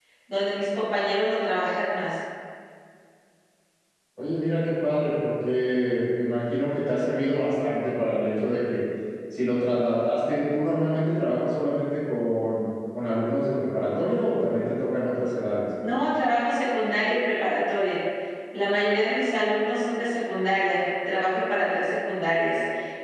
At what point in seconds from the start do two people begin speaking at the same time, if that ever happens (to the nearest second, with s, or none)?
none